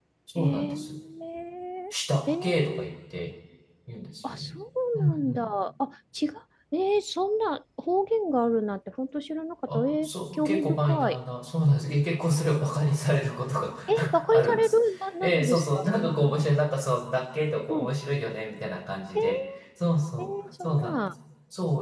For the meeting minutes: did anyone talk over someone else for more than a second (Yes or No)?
Yes